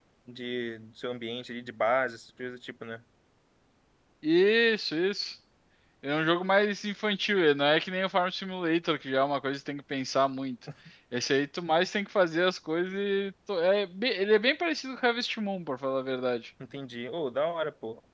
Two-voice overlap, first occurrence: none

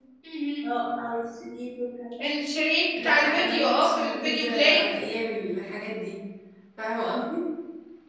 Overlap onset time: 3.0 s

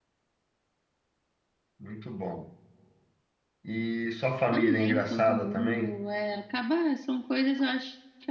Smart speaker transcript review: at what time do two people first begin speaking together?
4.5 s

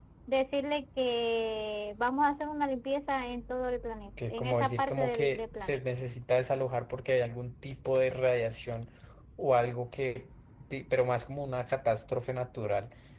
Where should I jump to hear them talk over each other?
4.2 s

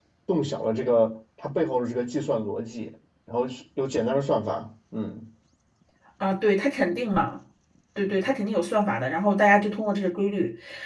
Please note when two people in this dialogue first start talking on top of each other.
none

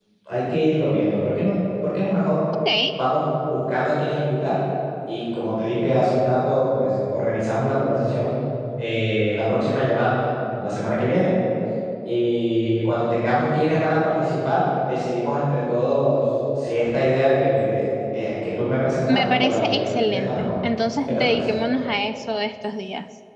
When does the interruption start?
19.1 s

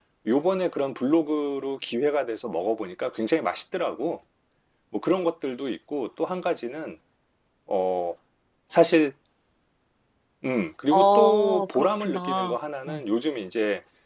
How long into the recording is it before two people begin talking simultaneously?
10.9 s

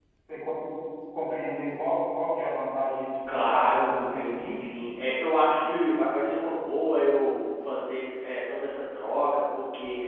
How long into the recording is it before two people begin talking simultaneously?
3.3 s

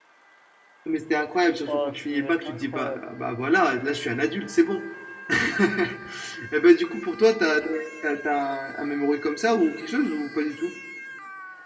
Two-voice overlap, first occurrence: 1.7 s

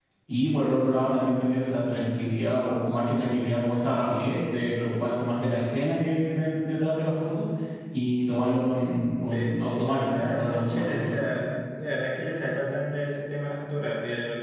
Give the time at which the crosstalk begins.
9.2 s

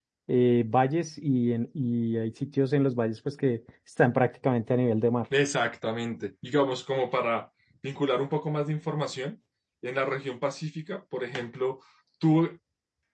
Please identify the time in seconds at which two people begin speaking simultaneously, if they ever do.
none

